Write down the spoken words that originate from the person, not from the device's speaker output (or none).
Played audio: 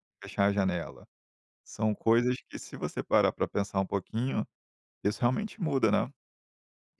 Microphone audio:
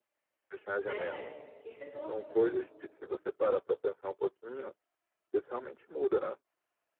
né, que situação.